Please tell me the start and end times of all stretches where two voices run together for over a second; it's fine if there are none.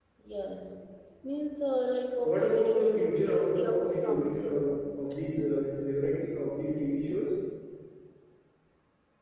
2.2-4.6

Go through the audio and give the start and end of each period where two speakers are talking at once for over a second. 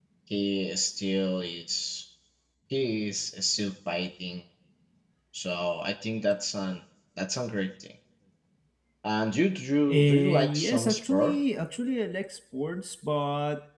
9.9-11.4

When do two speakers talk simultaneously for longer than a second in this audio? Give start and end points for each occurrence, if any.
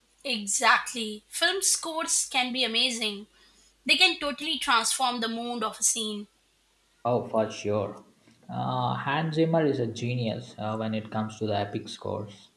none

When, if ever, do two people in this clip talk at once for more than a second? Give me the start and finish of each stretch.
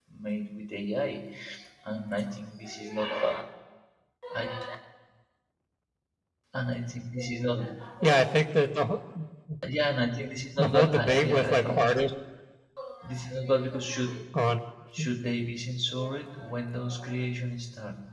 10.6-11.8

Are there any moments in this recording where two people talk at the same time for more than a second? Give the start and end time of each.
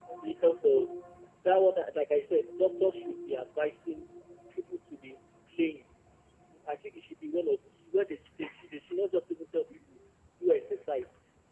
none

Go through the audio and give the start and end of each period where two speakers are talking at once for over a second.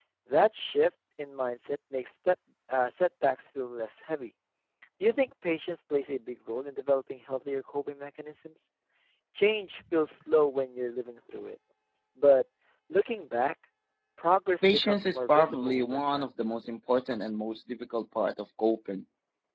14.6-16.3

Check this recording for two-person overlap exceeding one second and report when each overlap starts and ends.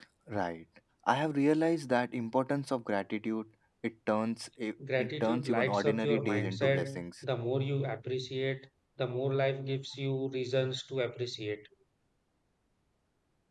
5.0-7.0

